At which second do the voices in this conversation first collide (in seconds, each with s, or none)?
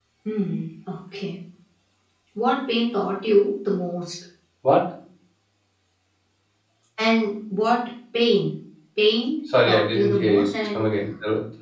9.5 s